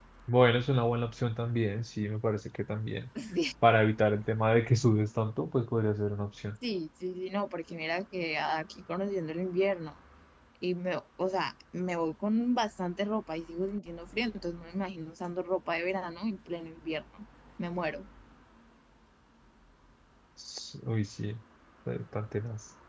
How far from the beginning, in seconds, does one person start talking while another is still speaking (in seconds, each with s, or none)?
none